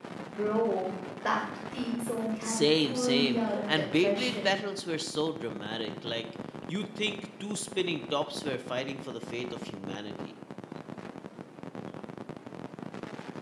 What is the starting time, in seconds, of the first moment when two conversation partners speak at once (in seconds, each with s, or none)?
2.4 s